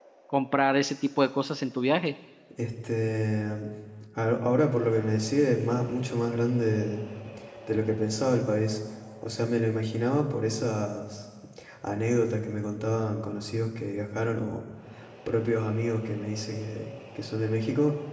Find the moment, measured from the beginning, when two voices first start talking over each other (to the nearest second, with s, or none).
none